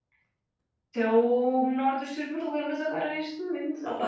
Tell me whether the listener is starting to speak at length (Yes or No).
Yes